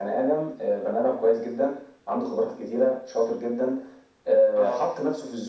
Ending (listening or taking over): listening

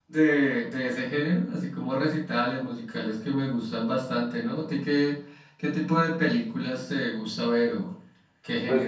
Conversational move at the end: taking over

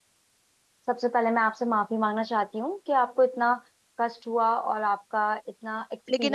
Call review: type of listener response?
taking over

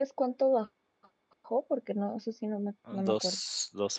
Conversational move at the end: taking over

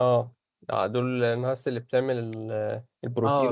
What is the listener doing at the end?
taking over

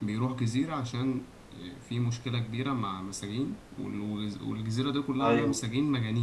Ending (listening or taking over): listening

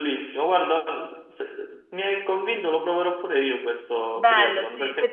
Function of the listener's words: taking over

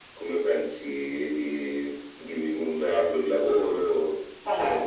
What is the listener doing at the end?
taking over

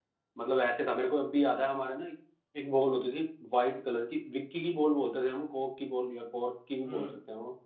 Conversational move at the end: taking over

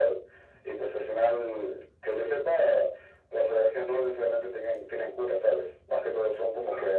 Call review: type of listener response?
listening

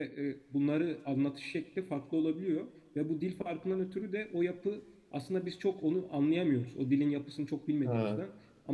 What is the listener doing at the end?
listening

